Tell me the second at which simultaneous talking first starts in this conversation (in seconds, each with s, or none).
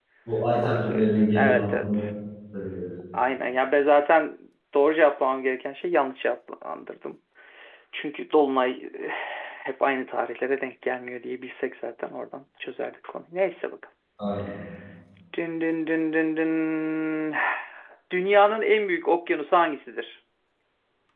0.6 s